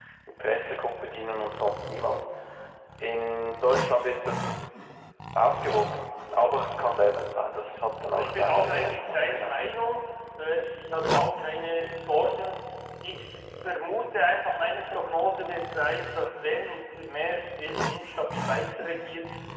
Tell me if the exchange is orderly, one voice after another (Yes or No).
No